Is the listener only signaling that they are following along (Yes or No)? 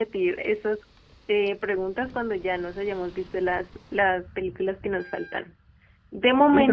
Yes